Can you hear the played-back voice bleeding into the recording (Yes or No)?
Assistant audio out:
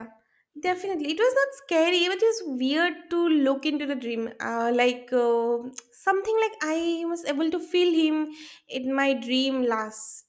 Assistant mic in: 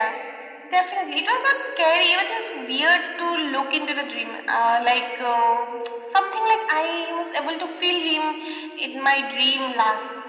Yes